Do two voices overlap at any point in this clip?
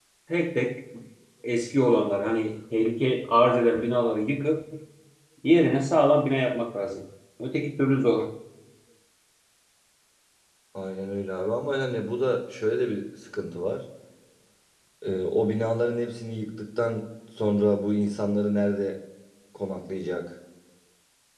No

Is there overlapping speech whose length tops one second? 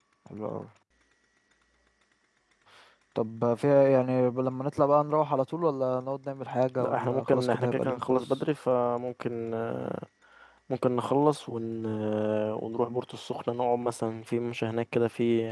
Yes, from 6.8 s

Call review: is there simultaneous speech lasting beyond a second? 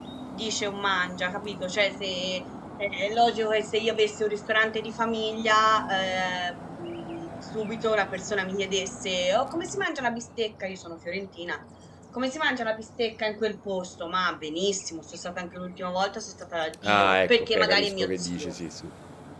Yes, from 16.8 s

